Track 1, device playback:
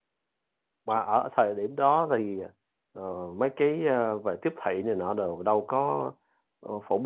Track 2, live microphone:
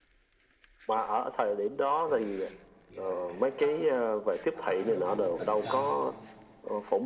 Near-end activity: present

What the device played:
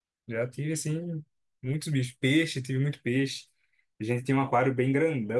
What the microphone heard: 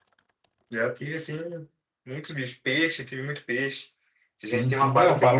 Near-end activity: present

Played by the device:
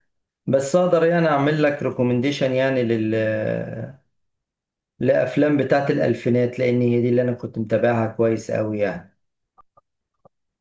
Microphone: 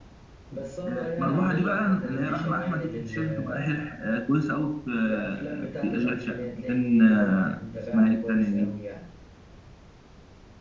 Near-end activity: present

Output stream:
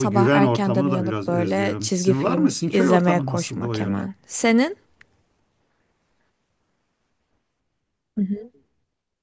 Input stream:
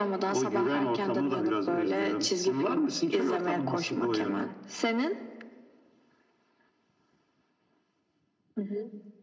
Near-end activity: none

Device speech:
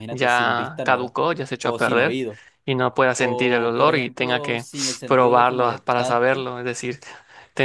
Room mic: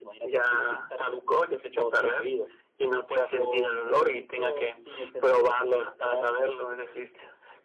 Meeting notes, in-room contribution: none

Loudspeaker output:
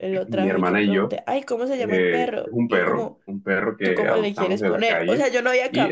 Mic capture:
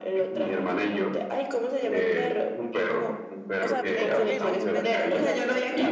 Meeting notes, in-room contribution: present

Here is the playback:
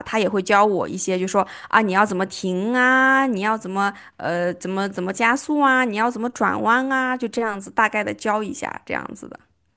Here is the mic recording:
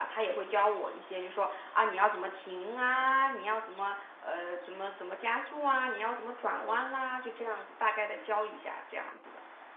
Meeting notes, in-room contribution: none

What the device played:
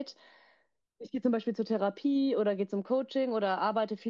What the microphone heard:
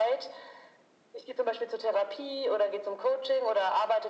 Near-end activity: none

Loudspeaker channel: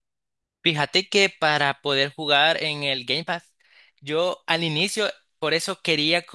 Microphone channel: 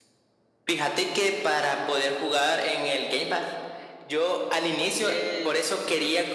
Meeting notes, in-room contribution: present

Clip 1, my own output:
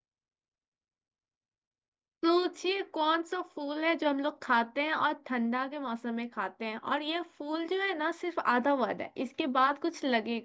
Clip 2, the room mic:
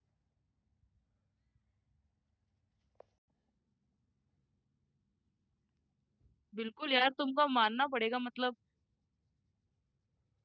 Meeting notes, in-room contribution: present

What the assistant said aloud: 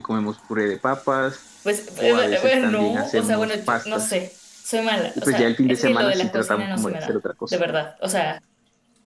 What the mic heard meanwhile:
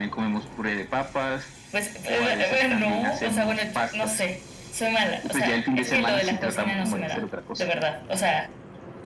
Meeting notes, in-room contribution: none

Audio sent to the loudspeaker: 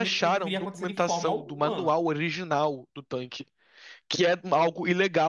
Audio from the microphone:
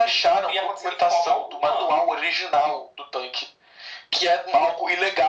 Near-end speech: none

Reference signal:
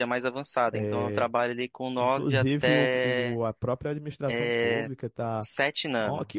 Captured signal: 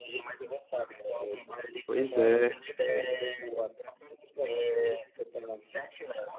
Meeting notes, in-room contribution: present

